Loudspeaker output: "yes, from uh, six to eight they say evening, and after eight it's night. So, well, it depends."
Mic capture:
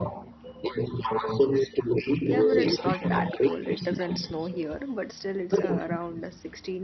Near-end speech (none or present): present